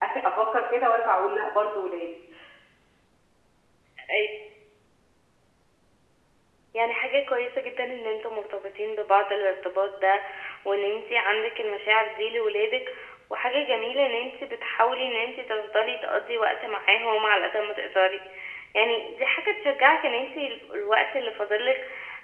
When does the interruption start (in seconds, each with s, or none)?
none